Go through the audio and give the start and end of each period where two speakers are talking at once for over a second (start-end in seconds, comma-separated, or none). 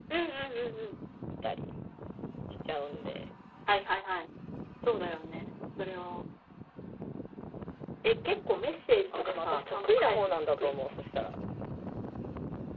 9.1-10.9